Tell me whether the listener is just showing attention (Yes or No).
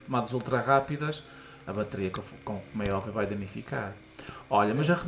Yes